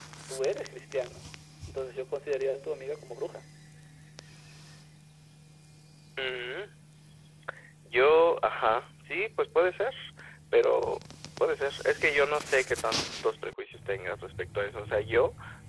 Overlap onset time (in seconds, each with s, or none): none